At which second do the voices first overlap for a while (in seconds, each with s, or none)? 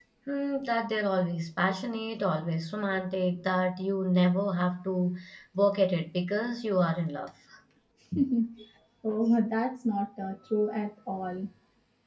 none